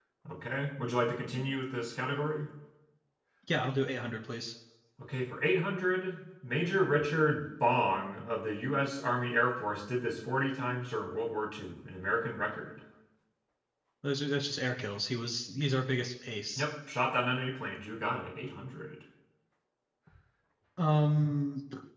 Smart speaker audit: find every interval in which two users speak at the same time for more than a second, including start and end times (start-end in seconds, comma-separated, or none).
none